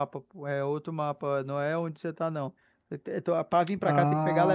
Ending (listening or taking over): listening